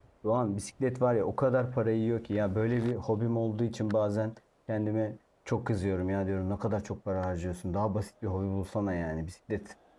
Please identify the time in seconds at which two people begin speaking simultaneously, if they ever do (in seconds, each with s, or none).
none